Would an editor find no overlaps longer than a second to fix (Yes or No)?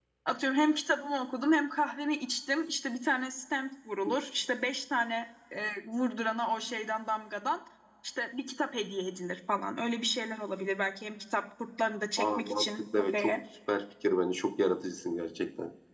No